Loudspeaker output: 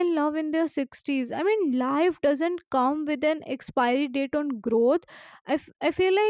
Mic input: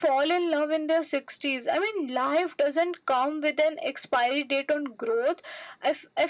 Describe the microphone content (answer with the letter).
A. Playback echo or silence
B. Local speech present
A